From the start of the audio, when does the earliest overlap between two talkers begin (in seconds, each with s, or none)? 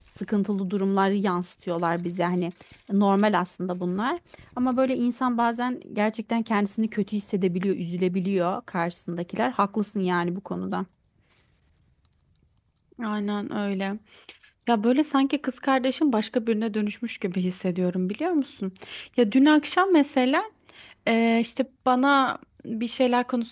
none